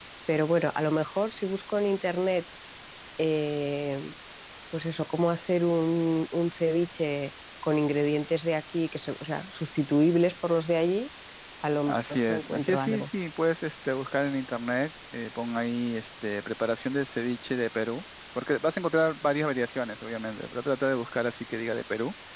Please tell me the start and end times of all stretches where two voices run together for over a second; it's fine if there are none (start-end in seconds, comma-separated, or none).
11.9-13.1